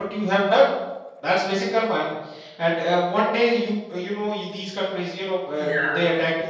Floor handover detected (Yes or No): No